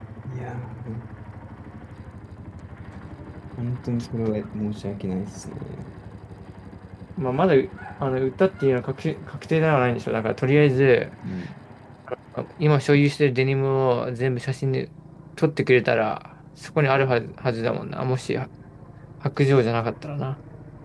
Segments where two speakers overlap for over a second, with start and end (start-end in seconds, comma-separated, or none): none